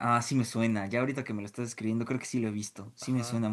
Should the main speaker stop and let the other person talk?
Yes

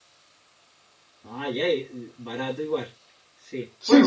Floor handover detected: Yes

